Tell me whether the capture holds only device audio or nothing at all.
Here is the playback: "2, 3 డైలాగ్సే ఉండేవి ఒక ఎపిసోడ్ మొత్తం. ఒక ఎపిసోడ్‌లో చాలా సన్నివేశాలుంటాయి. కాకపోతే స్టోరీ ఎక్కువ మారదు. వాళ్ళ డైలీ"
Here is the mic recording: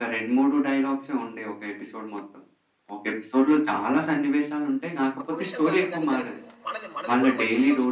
No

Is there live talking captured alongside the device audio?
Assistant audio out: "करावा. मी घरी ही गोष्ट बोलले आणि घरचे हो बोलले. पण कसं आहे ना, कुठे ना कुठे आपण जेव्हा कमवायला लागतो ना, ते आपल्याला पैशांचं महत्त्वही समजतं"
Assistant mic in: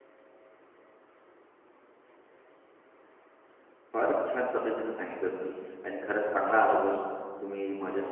Yes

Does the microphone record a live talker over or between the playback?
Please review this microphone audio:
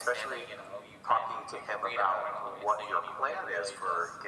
No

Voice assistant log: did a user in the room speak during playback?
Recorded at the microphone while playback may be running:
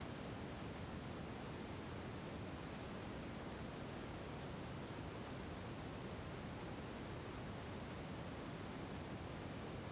No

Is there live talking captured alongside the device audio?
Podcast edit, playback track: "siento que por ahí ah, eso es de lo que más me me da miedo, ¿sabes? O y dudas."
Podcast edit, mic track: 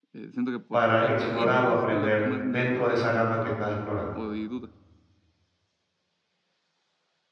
Yes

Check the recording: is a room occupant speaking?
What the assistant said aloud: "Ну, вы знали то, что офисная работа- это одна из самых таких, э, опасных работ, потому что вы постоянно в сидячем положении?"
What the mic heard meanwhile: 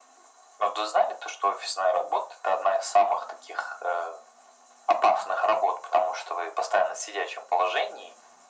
No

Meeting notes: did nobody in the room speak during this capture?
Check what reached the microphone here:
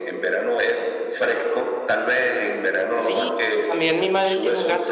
No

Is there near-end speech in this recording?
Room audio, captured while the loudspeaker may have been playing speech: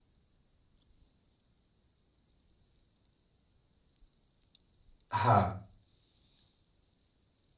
Yes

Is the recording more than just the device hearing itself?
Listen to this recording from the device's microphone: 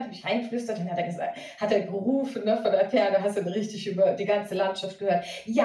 No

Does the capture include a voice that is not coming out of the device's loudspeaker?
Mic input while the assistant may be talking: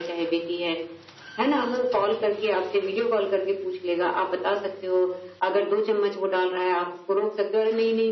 No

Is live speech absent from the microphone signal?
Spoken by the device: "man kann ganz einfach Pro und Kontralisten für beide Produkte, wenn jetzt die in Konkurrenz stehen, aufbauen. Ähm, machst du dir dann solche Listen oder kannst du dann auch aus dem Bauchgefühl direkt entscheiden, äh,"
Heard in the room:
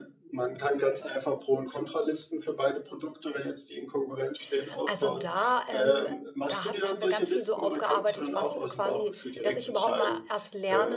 No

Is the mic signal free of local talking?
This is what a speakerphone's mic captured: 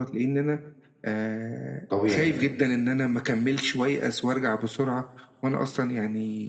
No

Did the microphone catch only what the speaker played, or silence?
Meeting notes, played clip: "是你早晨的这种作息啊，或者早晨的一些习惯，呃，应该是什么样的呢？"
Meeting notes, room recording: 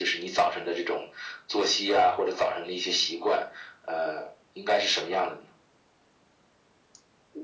Yes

